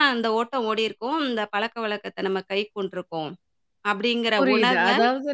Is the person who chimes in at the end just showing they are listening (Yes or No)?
No